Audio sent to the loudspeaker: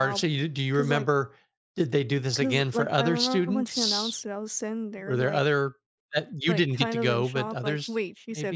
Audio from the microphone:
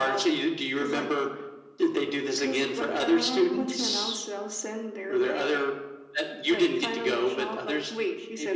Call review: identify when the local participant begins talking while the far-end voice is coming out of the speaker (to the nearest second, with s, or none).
none